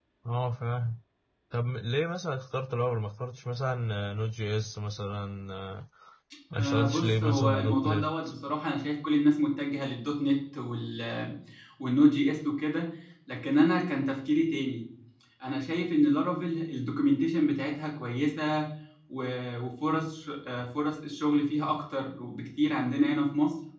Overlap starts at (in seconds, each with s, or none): 6.6 s